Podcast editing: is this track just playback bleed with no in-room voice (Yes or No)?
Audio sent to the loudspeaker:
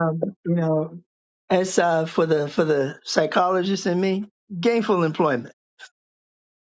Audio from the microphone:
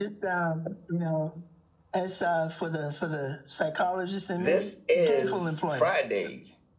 No